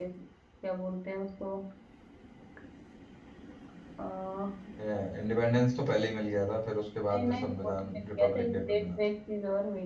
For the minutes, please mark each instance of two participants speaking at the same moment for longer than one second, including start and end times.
7.3-9.0

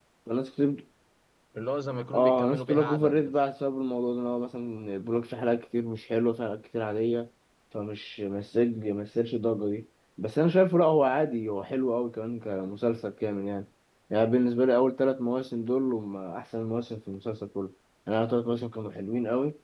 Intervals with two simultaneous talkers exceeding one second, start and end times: 2.1-3.3

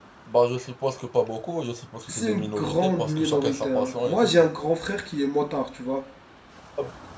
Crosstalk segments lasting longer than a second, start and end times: 2.1-4.3

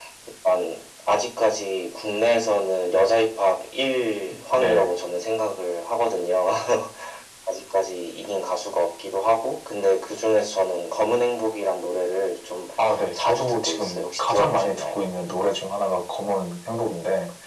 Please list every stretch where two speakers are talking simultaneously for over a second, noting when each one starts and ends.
13.2-15.0

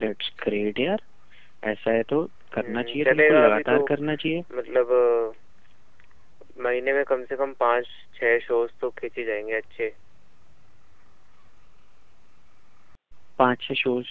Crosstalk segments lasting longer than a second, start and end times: 2.6-3.8

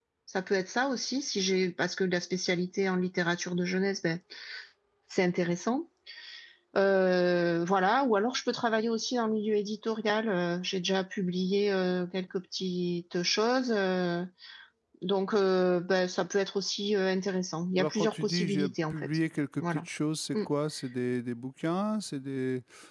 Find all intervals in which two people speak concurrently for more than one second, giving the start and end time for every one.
17.8-19.1

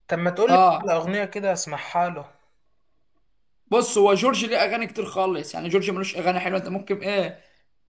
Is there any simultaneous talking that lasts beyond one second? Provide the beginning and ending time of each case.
none

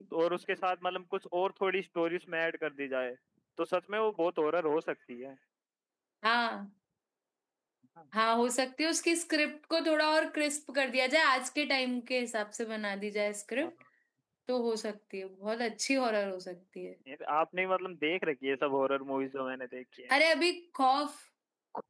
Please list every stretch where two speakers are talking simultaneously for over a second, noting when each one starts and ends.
none

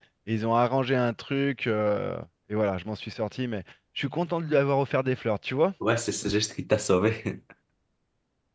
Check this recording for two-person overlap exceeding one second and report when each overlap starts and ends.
none

